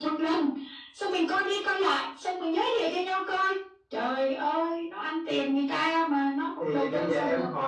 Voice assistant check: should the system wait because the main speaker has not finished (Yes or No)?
No